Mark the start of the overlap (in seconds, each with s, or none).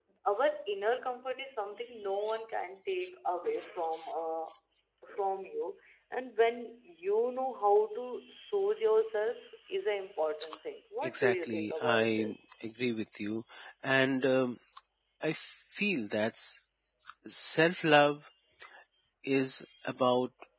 11.0 s